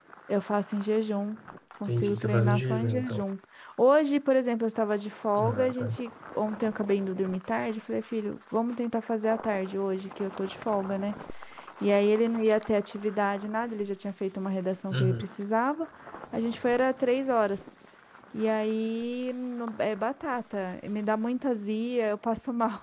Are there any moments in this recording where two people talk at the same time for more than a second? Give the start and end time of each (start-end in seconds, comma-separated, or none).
1.9-3.2